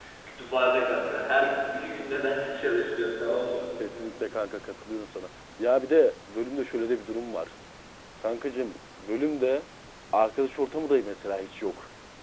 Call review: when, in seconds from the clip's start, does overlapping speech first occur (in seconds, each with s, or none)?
none